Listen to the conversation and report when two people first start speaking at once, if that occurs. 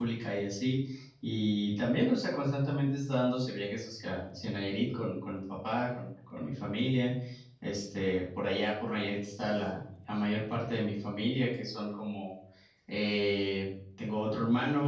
none

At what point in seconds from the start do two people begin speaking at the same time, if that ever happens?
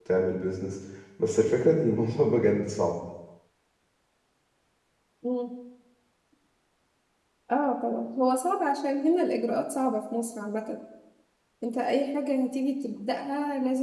none

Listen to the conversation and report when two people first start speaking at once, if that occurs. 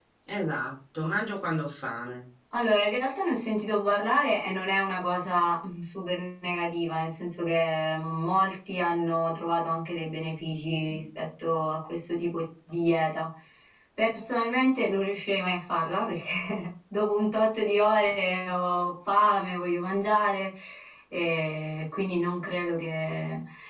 none

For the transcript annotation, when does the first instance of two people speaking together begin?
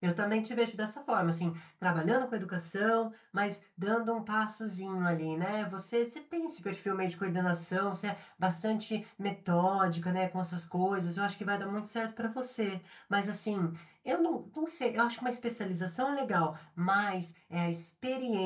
none

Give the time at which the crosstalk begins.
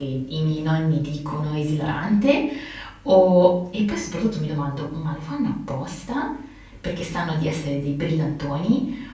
none

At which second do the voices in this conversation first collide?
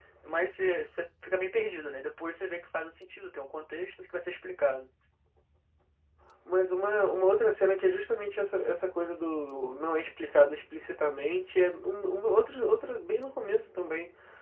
none

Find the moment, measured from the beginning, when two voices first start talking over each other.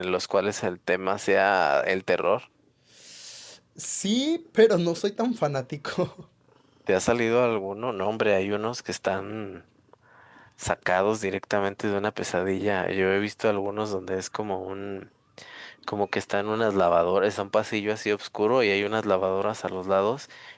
none

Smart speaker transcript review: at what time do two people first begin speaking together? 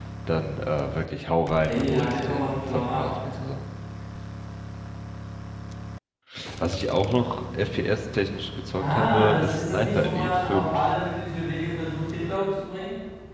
1.7 s

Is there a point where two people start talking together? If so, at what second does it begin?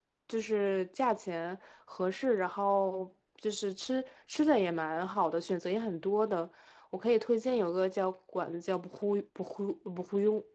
none

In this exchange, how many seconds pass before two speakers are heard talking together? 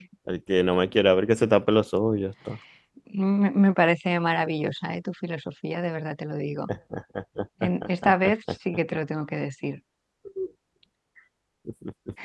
none

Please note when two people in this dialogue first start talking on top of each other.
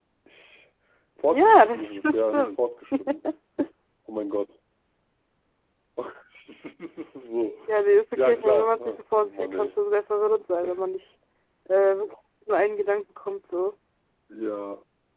1.3 s

